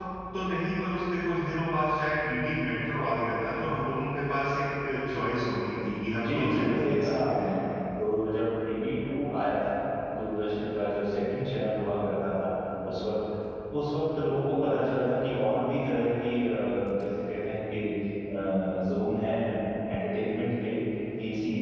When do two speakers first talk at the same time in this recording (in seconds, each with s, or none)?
6.1 s